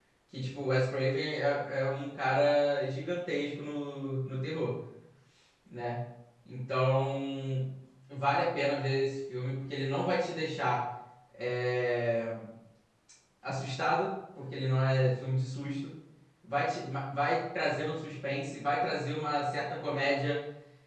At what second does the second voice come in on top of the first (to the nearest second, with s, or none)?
none